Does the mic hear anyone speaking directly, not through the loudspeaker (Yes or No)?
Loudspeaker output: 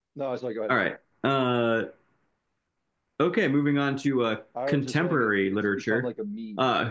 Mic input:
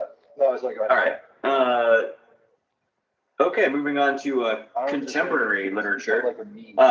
No